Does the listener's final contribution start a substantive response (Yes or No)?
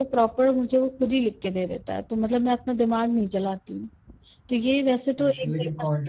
Yes